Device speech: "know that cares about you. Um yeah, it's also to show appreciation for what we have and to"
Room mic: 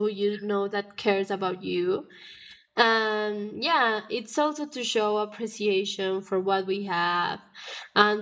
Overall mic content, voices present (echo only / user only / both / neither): echo only